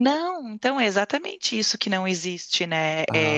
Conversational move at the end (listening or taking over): listening